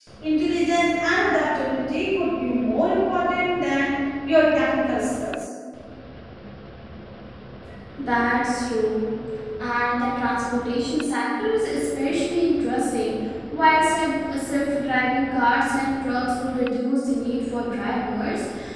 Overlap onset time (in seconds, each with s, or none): none